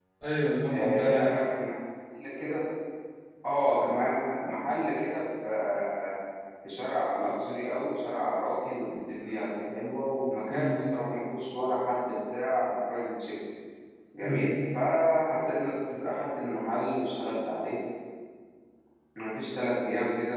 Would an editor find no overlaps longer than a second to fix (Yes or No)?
Yes